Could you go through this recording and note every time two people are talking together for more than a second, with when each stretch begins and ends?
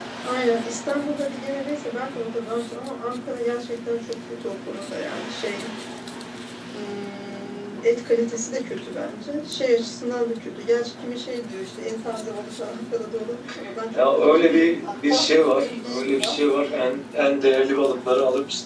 13.9-16.4

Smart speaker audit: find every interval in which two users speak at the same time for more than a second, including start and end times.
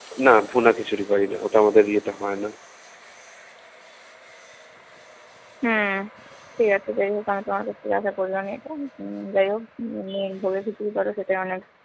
none

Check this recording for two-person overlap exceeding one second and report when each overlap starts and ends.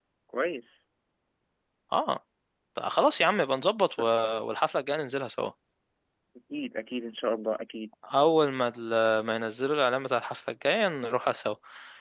none

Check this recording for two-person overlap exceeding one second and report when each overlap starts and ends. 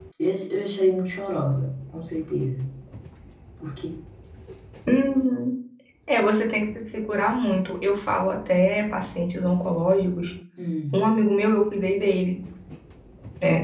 none

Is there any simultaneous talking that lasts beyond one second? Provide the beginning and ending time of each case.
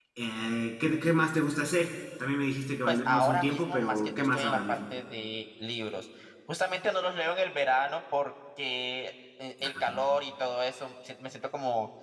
2.9-4.8

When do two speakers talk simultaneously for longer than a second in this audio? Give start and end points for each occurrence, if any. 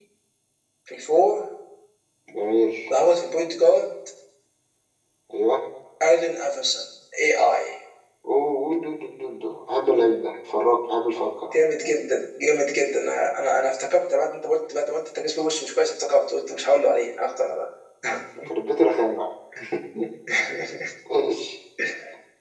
none

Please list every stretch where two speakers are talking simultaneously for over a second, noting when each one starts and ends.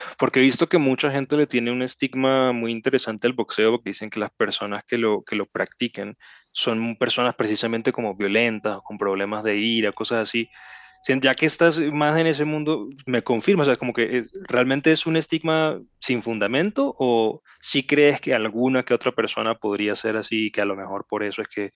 none

